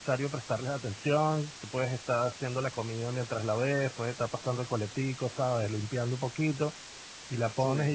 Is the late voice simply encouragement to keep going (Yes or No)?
Yes